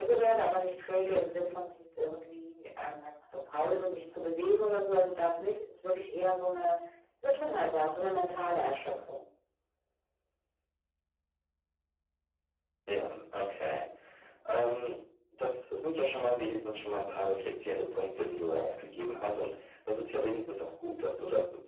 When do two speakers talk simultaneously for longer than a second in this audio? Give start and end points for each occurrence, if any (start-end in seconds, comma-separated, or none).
none